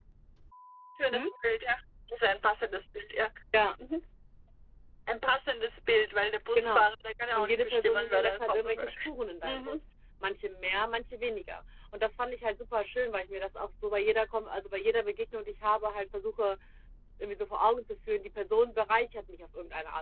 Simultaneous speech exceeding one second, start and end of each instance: 7.4-9.0

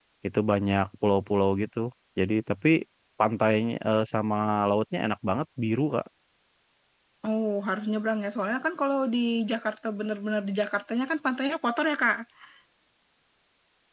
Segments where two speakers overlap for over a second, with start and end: none

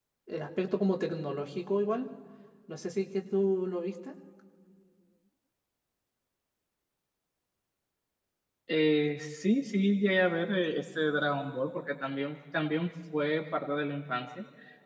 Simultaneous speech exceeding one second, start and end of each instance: none

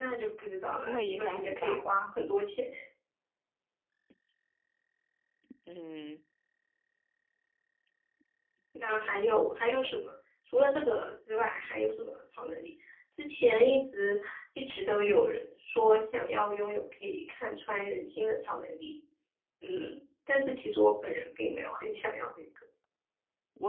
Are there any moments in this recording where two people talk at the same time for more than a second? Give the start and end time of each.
0.7-1.9

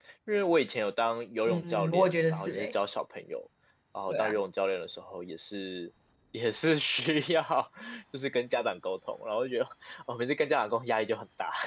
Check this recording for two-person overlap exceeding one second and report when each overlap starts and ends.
1.5-2.7

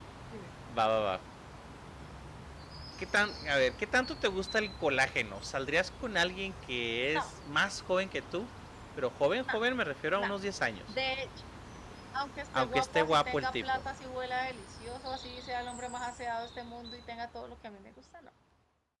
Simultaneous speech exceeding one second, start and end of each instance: 12.6-13.8

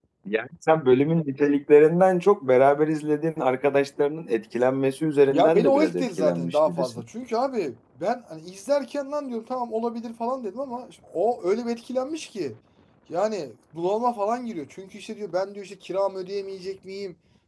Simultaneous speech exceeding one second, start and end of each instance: 5.3-6.9

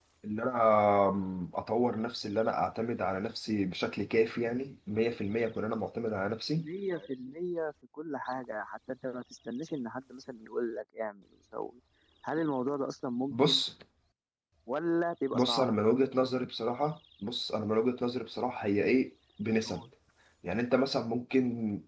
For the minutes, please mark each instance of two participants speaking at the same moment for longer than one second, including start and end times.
none

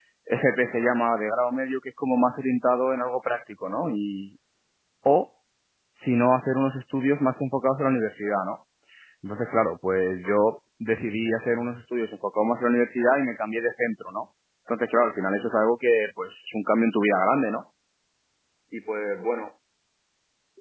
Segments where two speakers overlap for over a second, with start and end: none

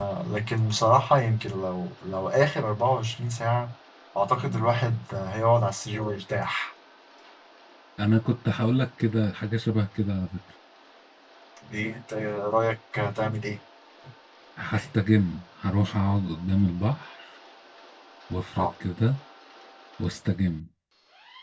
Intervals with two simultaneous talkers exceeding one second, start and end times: none

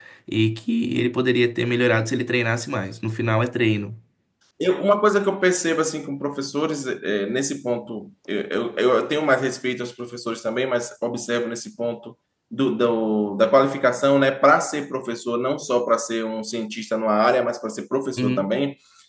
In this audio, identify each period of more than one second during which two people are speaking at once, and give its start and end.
none

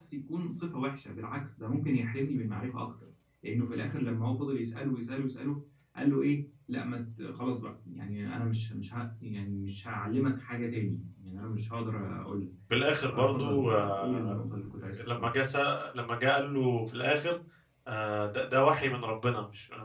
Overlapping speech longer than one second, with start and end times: 13.1-14.3

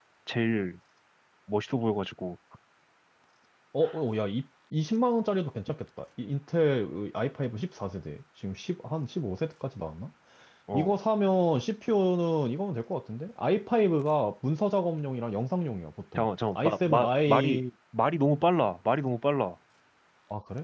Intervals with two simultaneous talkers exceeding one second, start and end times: 16.1-17.6

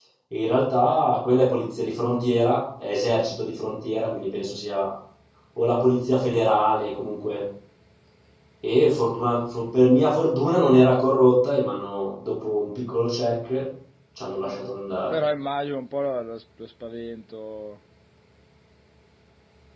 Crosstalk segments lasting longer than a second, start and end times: none

